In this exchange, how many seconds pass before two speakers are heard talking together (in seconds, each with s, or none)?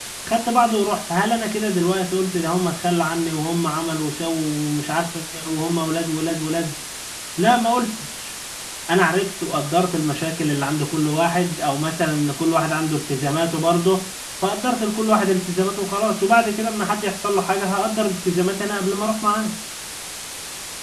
none